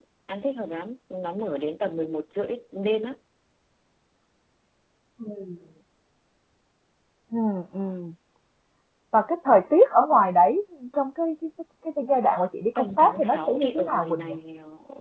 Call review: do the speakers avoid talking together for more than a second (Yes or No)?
No